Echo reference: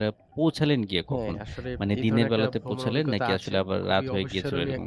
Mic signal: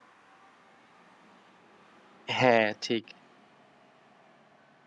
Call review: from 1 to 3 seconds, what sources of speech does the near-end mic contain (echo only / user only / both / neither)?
user only